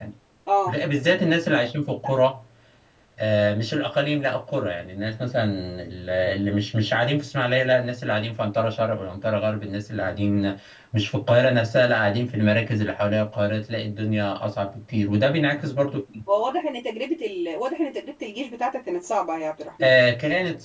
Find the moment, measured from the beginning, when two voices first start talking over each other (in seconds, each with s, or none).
none